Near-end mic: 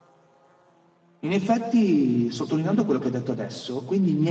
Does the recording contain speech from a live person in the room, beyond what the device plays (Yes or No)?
Yes